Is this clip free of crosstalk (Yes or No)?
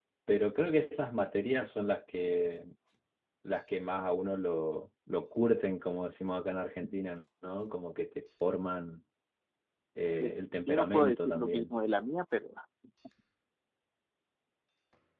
No